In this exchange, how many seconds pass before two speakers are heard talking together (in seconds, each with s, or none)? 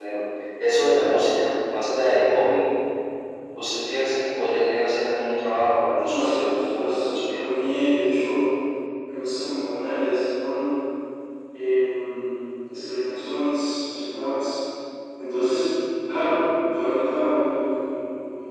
6.0 s